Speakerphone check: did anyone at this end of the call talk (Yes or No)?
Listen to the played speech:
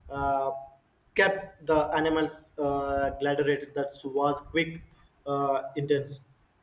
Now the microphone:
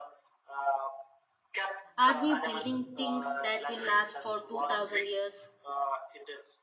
Yes